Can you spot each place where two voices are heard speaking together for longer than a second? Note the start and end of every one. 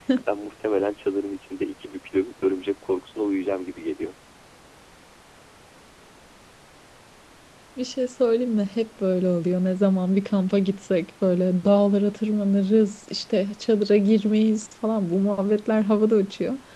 none

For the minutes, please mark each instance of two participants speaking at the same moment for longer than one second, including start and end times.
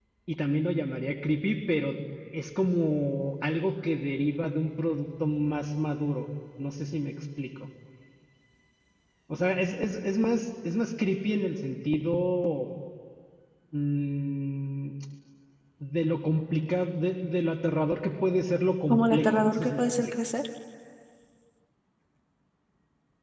18.9-20.1

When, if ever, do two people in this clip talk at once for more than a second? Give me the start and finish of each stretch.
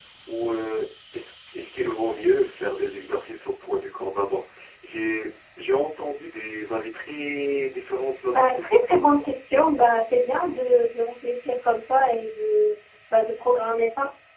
none

